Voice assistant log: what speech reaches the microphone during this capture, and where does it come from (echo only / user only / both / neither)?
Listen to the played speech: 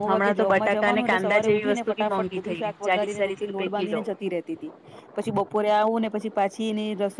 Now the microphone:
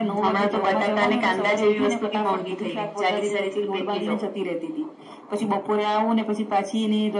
echo only